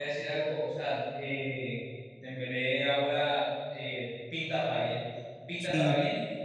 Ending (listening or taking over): listening